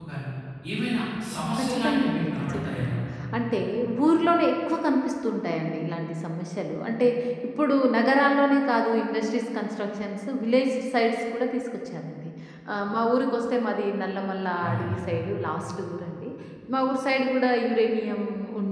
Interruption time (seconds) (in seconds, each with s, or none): 1.6 s